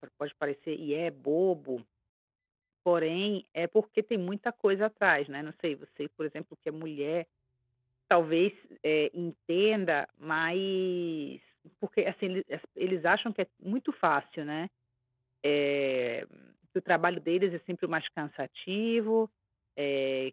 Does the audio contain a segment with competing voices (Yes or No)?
No